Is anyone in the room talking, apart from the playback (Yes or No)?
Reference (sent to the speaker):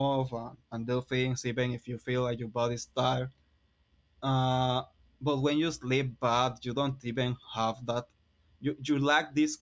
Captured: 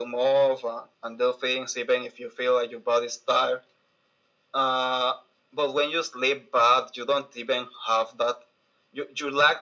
No